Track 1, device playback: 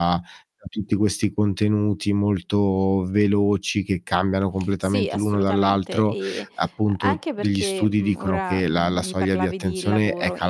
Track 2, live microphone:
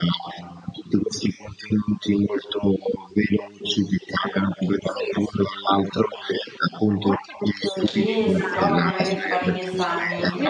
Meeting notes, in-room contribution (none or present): present